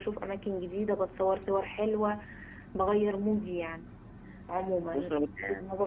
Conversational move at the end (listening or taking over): listening